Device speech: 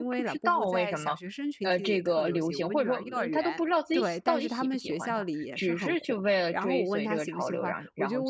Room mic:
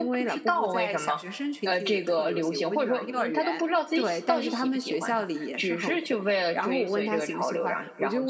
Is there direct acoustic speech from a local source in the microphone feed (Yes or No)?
No